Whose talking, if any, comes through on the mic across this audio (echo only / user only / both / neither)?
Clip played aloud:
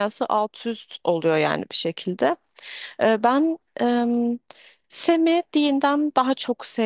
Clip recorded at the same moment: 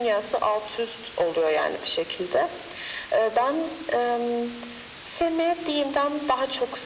echo only